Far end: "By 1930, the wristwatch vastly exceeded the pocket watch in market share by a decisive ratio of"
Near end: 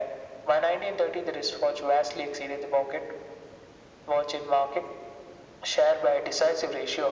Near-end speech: none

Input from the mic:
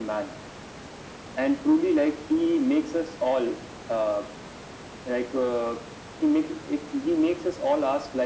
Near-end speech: none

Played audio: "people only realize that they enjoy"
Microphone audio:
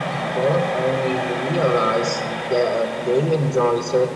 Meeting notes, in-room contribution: none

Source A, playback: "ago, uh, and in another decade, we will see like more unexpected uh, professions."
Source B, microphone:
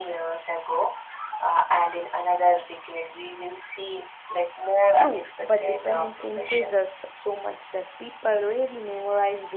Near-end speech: present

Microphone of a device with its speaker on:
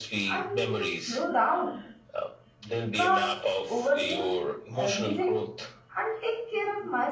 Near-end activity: present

